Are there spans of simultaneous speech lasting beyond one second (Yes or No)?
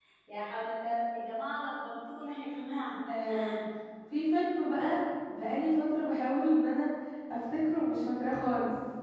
No